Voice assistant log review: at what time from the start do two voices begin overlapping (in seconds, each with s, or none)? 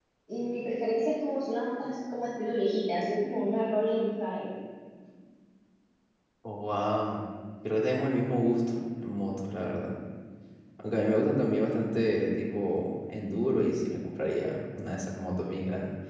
none